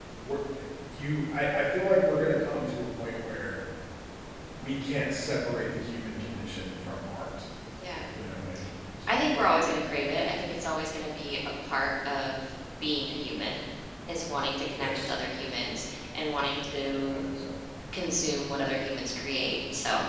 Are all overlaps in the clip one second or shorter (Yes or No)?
Yes